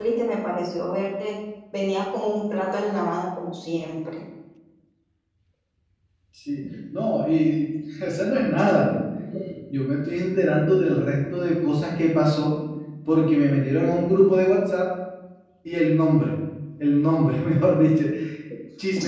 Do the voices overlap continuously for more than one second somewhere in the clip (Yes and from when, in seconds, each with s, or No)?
No